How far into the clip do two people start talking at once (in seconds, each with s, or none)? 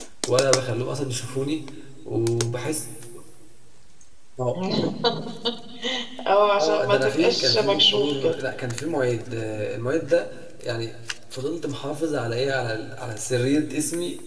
6.6 s